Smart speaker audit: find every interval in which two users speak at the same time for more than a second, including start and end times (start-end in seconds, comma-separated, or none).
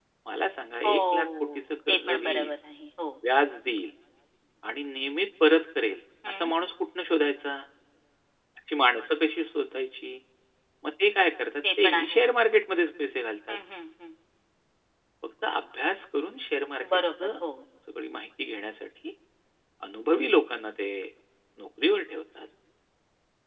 0.8-2.5